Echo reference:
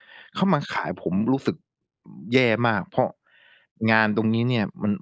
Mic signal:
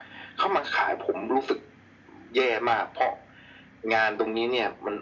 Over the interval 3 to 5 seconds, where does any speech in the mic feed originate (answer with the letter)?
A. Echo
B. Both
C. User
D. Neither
A